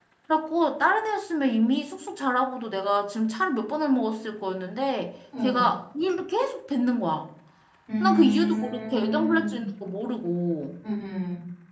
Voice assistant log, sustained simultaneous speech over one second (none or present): present